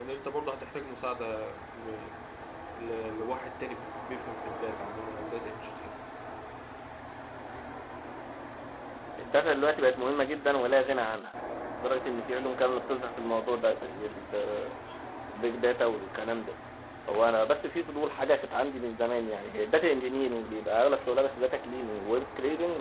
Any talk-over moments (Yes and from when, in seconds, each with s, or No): No